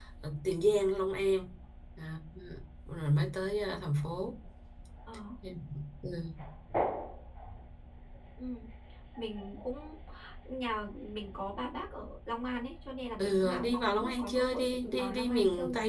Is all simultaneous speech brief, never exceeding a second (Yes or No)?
No